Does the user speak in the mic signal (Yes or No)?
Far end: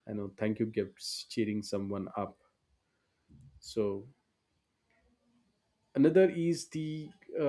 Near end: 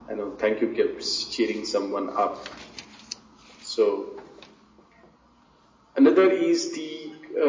No